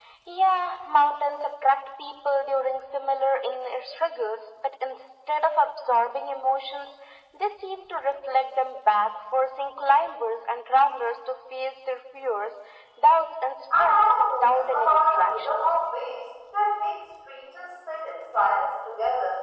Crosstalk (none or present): present